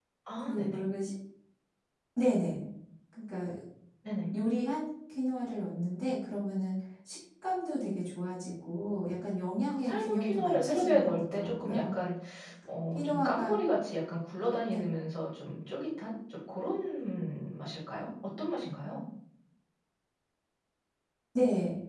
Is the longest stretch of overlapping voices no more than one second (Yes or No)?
No